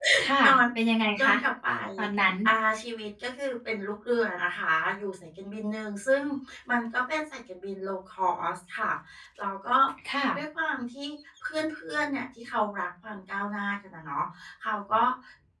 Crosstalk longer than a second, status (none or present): none